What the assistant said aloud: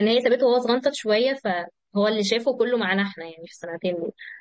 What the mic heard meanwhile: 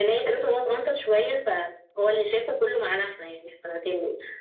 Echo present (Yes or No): Yes